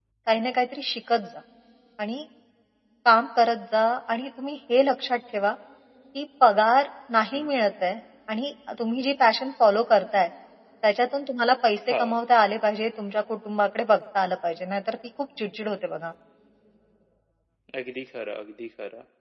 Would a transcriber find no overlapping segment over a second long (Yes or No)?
Yes